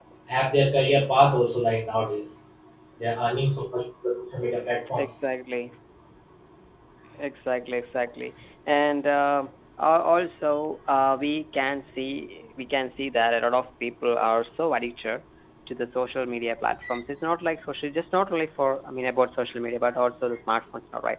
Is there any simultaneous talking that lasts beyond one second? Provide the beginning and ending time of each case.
none

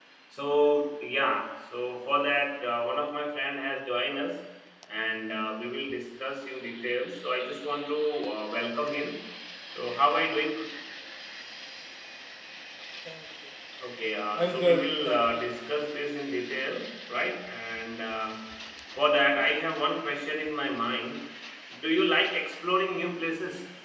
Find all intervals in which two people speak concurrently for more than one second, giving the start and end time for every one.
14.4-15.6

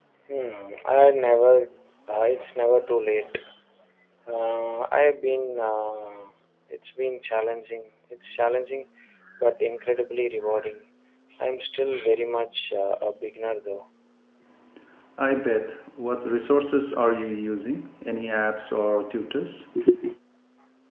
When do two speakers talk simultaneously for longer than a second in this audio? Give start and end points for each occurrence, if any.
none

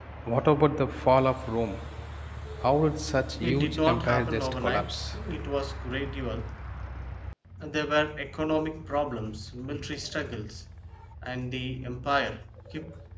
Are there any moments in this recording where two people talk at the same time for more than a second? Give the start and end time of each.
3.4-5.2

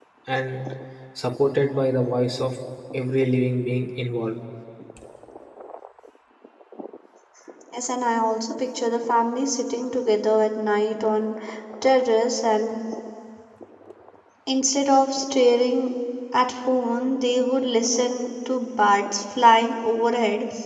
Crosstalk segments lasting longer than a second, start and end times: none

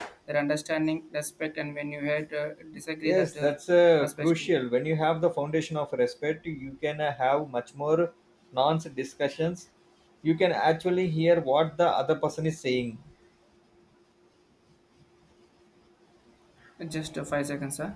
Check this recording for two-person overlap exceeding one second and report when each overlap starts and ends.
none

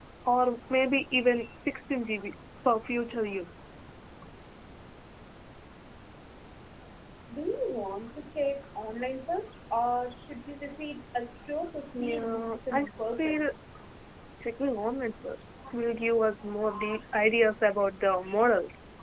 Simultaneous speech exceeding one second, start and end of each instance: 12.0-13.5

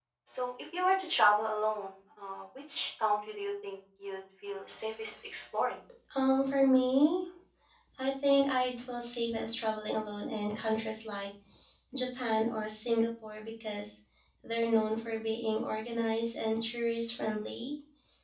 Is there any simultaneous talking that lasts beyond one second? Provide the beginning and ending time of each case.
none

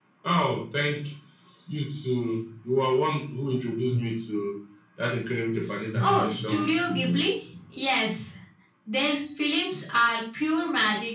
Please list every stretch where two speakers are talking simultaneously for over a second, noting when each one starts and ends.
6.0-7.2

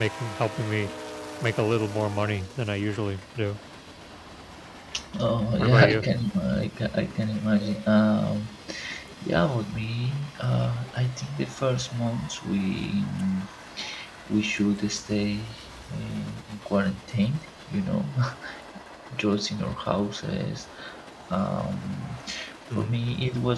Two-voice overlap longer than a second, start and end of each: none

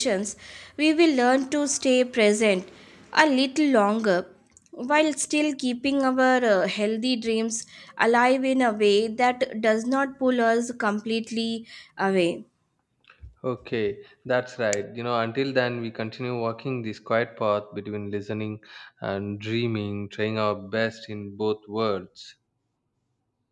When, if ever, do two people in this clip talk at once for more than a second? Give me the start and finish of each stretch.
none

